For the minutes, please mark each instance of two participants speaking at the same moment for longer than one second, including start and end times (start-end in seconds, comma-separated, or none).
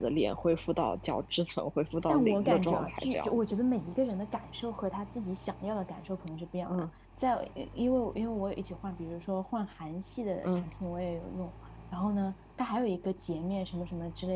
2.1-3.4